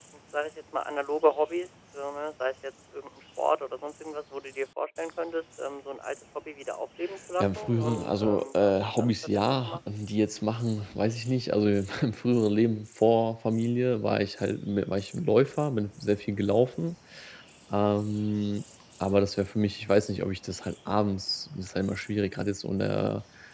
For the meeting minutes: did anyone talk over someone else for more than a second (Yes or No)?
Yes